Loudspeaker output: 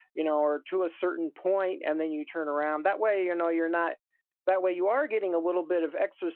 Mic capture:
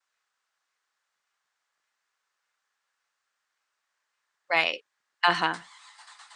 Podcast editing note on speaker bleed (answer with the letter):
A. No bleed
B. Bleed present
A